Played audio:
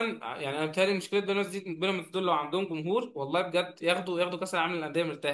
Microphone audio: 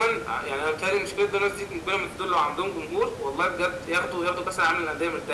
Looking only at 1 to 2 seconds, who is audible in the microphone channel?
echo only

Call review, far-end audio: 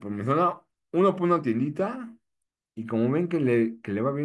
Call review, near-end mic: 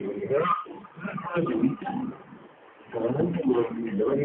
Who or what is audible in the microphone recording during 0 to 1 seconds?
echo only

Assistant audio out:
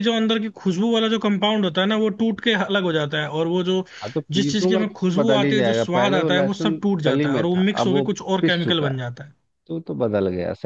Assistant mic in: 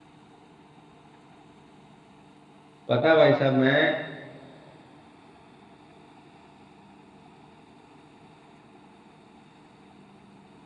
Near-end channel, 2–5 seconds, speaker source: user only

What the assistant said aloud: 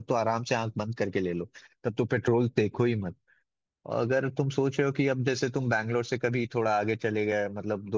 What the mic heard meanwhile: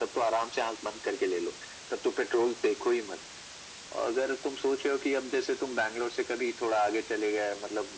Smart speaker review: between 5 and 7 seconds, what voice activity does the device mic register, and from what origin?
echo only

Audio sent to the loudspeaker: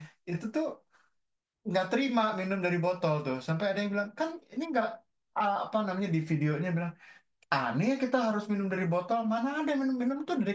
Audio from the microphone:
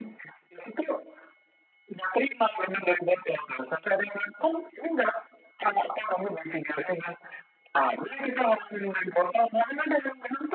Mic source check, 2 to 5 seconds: echo only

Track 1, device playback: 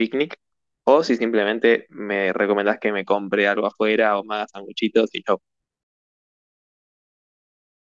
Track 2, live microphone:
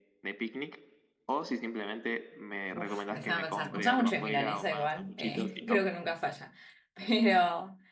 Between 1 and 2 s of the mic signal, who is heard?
echo only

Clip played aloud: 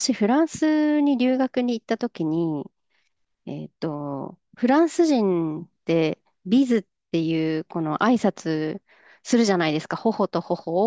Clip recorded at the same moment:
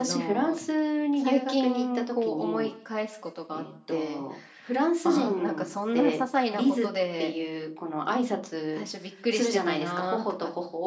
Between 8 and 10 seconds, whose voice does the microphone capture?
both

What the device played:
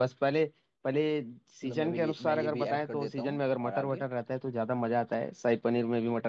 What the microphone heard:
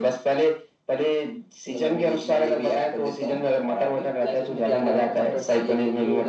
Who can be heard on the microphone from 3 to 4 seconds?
echo only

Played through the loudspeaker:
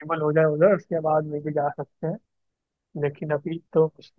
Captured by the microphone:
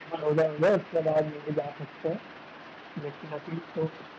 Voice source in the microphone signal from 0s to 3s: echo only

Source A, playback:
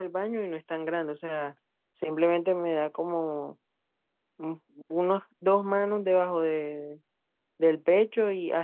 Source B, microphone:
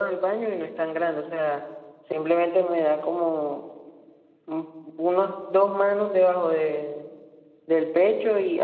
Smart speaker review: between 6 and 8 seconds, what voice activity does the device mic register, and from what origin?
echo only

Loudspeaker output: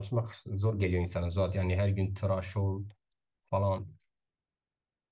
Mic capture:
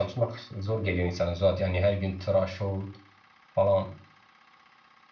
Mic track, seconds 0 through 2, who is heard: echo only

